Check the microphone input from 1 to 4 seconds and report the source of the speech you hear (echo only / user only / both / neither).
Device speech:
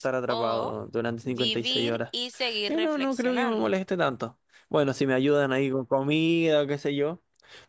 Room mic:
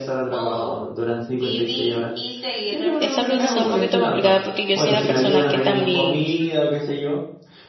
both